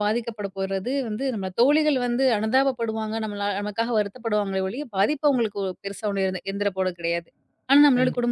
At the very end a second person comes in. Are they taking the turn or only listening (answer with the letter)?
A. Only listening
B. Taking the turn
A